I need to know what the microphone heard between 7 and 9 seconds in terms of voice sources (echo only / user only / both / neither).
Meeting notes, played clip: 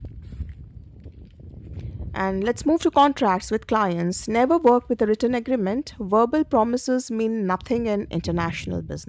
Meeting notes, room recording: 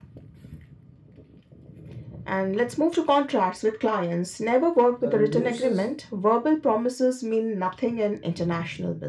echo only